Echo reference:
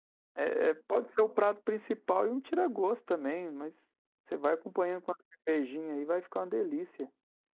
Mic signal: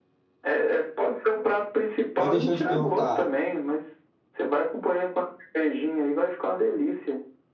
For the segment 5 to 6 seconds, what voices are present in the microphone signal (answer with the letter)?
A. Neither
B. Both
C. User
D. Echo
D